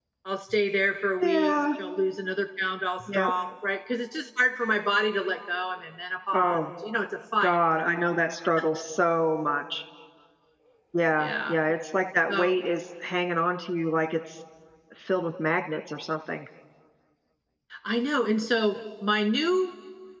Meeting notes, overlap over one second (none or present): none